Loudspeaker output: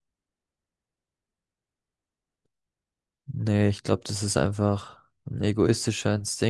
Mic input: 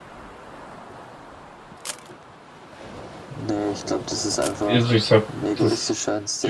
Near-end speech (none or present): present